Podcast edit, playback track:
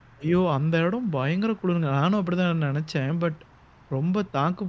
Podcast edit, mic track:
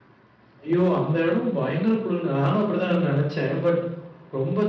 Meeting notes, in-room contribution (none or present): none